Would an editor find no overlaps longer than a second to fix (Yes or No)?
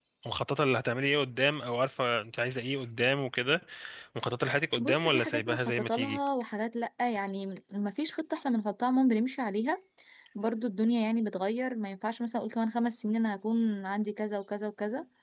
No